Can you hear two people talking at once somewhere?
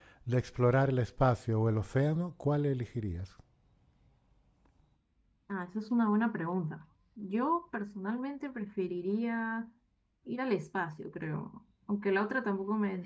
No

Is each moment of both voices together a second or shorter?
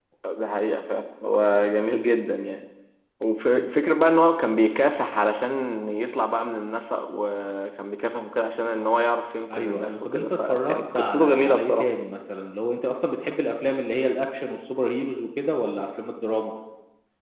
No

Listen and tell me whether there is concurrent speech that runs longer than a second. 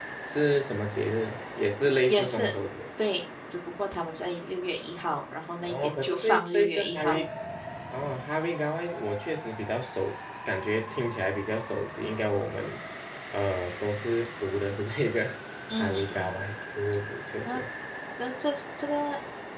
Yes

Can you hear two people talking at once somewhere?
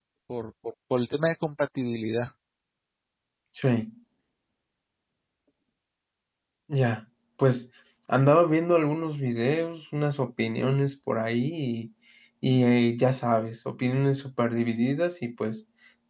No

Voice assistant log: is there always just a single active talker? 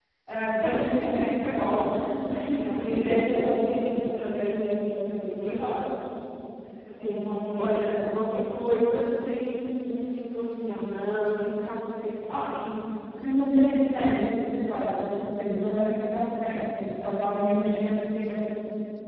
No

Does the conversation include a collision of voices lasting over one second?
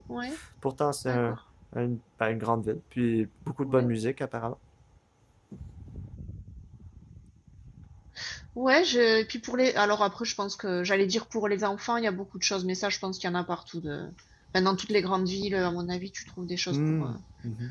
No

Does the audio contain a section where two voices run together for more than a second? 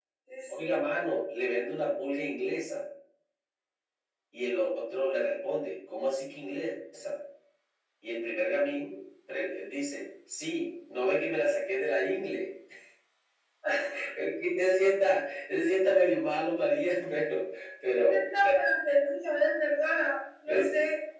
No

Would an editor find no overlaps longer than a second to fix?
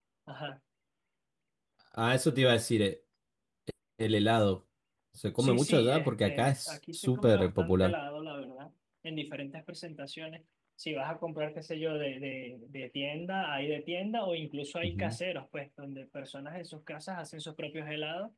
No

